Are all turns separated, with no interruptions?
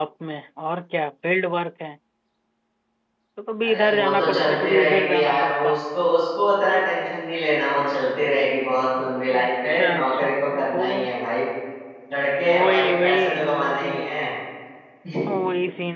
No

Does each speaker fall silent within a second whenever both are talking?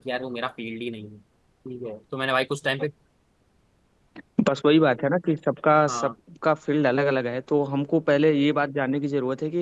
Yes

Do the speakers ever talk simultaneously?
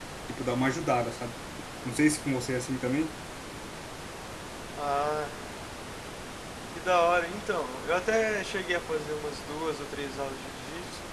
No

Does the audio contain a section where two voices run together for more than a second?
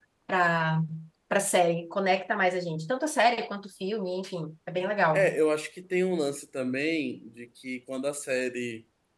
No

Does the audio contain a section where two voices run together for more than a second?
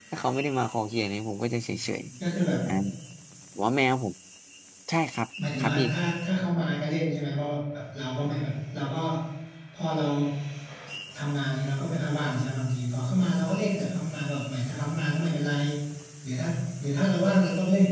No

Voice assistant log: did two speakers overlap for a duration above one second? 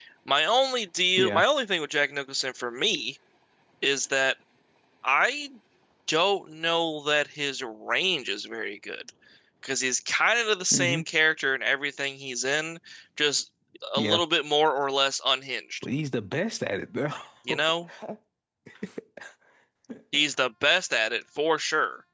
No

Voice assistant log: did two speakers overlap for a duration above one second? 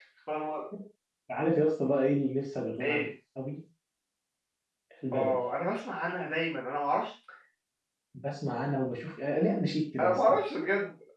No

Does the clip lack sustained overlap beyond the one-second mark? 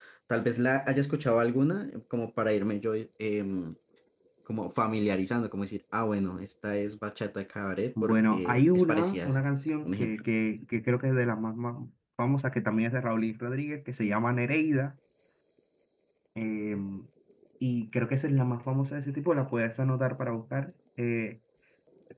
No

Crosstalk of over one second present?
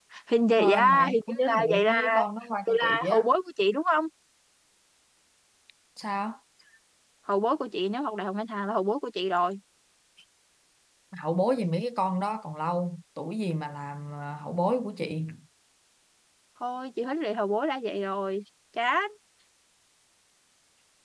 Yes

